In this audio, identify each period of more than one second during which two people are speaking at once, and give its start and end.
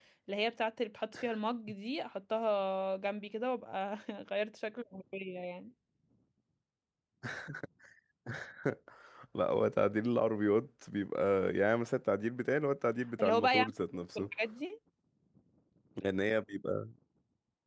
none

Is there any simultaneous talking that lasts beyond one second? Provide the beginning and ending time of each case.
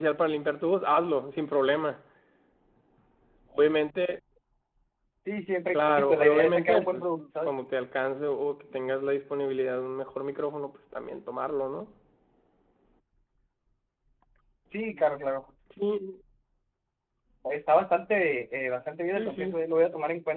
5.7-7.5

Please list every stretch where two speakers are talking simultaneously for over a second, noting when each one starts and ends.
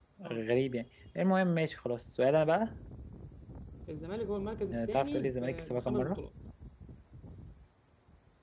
4.7-6.2

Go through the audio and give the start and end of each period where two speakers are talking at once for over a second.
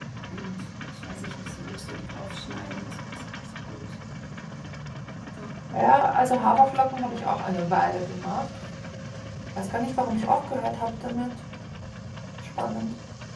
none

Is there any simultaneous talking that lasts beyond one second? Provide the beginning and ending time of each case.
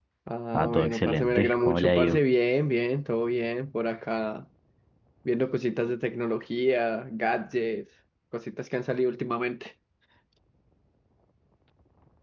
0.5-2.2

